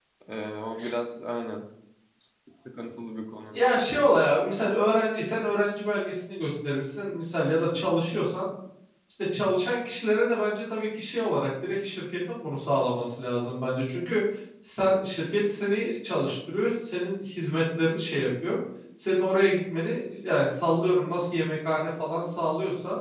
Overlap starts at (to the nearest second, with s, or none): none